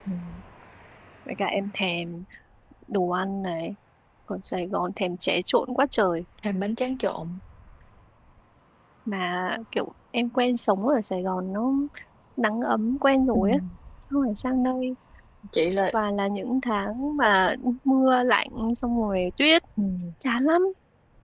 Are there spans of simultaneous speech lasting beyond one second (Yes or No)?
No